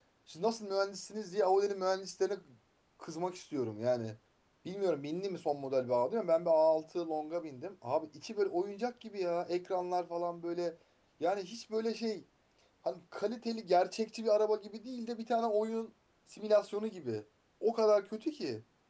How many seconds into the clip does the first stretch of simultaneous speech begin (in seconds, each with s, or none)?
none